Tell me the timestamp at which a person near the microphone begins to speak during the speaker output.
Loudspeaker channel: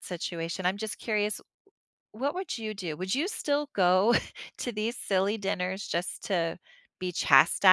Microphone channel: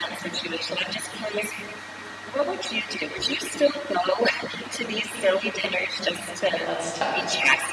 6 s

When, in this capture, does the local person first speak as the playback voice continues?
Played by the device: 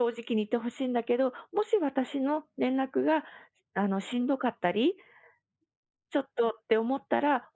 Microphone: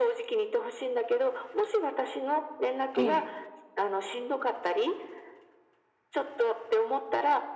3 s

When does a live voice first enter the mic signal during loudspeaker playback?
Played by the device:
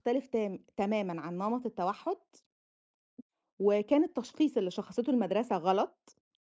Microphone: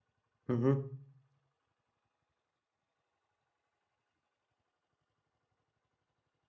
0 s

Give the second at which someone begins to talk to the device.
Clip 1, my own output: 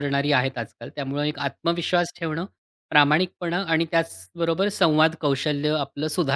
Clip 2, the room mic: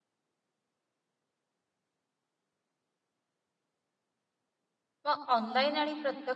5 s

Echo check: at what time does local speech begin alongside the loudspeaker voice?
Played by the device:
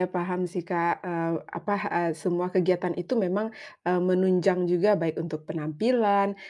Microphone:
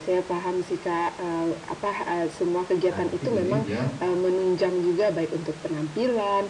3 s

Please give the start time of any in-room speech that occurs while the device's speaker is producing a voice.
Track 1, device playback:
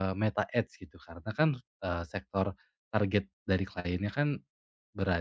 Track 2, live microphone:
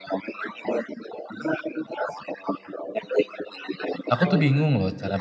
4 s

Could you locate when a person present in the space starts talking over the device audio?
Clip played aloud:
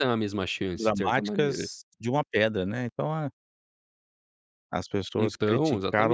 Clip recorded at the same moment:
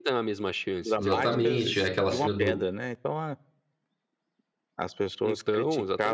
1 s

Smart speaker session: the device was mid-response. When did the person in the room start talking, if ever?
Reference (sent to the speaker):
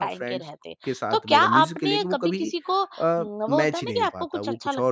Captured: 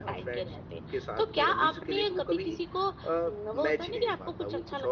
none

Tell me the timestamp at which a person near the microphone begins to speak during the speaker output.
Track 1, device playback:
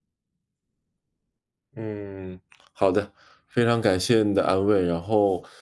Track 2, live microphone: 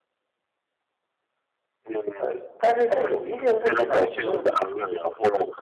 2 s

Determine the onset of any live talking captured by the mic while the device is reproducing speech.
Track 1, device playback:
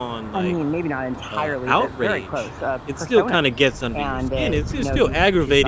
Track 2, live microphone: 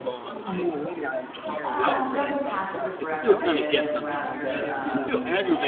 2 s

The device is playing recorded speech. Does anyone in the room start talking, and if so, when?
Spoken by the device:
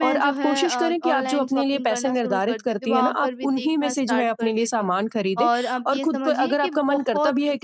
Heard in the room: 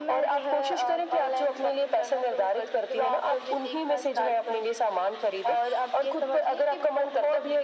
none

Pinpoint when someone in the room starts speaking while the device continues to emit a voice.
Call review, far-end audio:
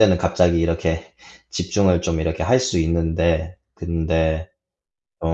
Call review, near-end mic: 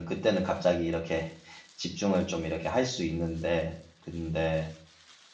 none

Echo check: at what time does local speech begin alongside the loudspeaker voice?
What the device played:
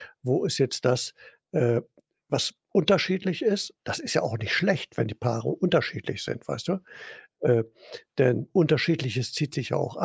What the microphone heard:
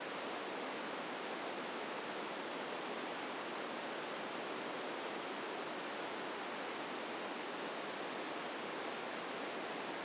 none

